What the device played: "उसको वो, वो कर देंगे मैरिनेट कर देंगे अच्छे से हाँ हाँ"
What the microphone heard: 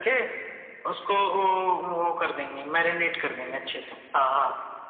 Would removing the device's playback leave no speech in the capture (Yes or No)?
Yes